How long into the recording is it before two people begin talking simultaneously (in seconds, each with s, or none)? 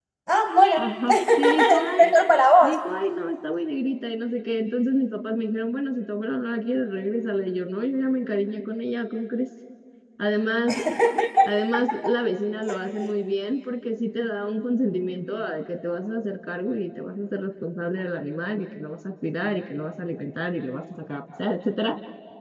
0.8 s